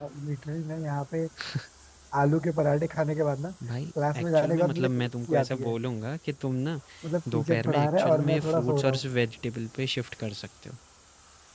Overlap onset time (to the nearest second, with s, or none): 4 s